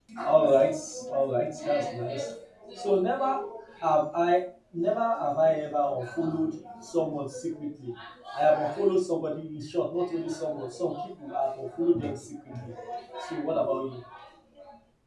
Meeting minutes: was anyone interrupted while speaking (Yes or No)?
No